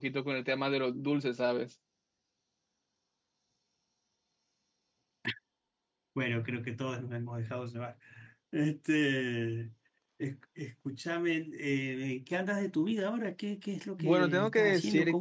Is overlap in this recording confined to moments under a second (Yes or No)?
No